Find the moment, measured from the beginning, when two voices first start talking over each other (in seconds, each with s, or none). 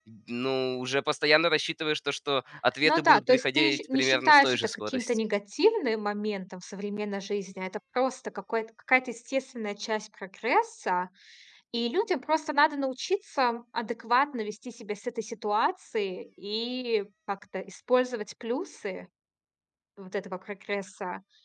2.8 s